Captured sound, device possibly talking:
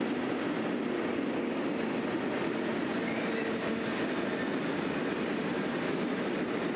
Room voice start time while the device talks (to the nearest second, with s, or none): none